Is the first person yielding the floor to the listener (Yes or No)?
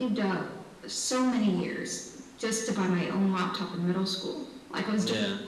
No